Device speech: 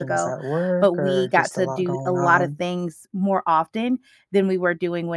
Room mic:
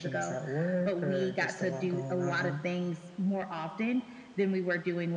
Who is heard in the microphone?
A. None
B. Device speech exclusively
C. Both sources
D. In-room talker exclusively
B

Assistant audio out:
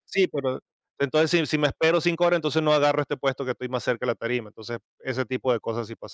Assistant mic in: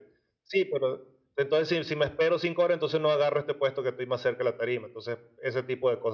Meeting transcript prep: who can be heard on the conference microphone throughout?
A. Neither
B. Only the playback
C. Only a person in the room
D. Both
B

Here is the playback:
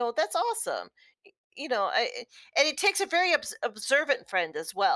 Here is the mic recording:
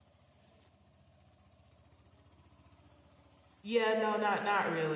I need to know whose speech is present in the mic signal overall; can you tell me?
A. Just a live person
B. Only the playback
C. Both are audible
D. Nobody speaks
A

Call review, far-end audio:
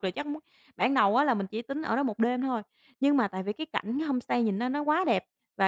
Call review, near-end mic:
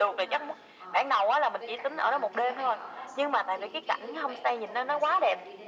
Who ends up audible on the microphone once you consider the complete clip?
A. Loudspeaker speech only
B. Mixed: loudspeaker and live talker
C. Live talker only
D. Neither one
B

